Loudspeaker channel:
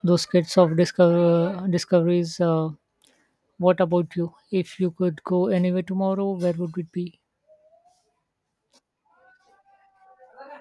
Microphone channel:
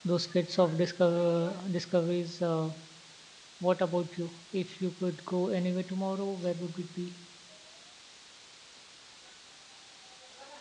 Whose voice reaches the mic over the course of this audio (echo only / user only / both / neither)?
echo only